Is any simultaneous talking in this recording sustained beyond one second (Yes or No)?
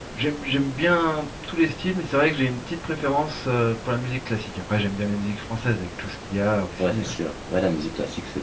No